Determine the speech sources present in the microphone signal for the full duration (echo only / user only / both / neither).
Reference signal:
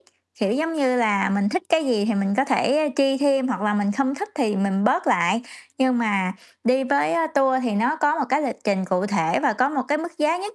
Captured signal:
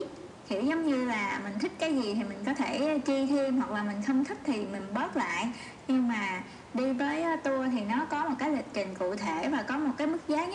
echo only